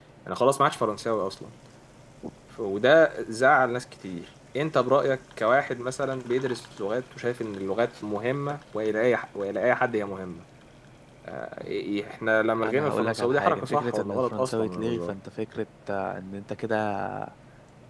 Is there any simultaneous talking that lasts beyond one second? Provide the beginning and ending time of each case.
12.6-15.1

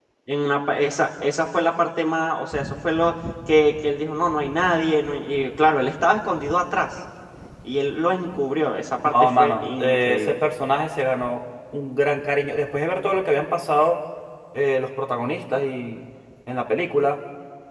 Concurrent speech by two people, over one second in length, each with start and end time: 9.0-10.4

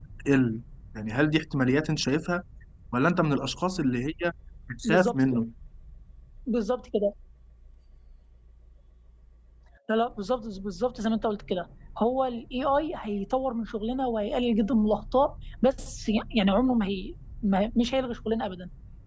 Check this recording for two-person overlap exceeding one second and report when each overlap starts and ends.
none

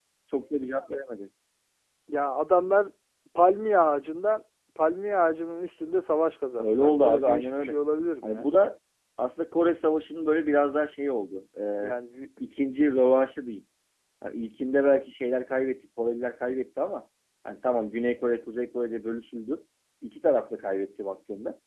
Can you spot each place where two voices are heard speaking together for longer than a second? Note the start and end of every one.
6.6-7.8

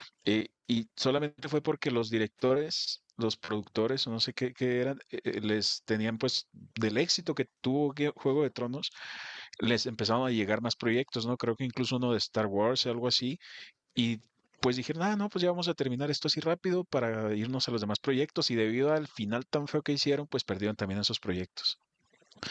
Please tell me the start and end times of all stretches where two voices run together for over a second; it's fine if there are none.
none

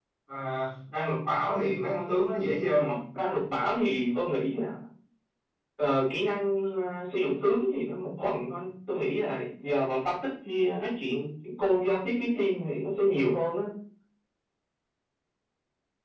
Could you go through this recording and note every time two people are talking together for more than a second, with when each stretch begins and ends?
none

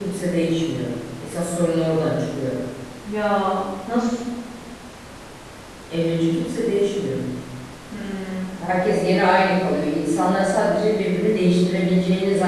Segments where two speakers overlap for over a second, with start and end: none

